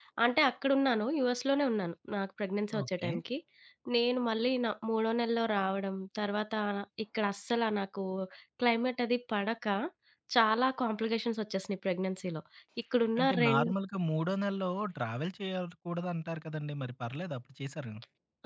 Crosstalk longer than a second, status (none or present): none